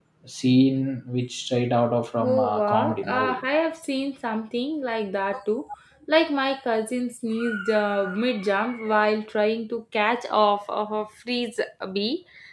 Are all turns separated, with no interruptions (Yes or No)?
No